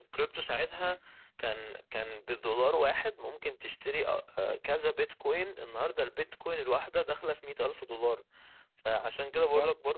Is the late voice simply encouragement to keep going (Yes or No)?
Yes